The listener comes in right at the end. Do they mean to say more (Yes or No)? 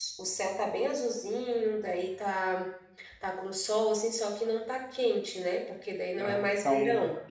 Yes